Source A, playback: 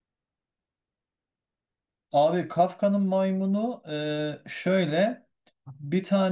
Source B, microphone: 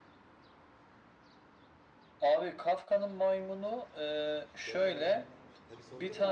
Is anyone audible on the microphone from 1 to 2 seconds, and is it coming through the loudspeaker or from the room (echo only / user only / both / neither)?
neither